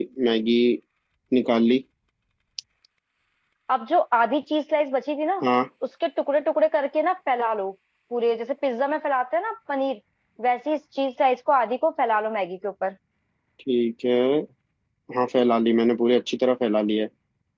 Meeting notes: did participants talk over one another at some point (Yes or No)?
No